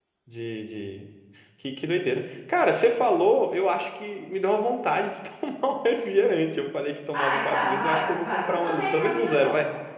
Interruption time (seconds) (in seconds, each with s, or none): 7.1 s